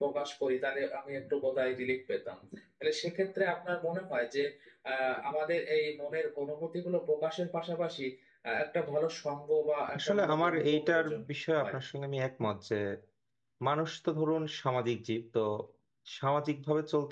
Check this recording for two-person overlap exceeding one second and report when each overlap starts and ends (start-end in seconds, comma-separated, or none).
10.0-11.2